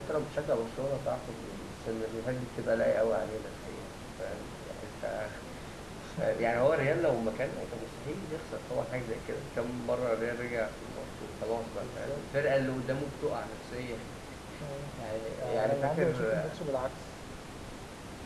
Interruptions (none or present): present